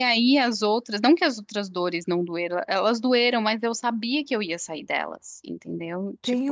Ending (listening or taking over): taking over